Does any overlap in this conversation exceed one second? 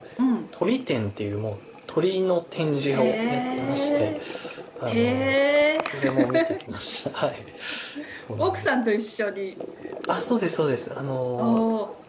Yes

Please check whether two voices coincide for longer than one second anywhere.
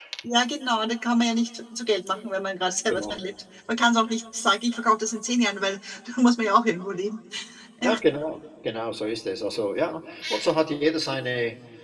No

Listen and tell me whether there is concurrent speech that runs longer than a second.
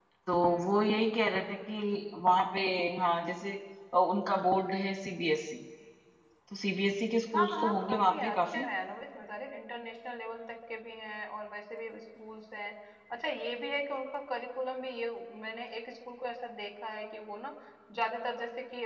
Yes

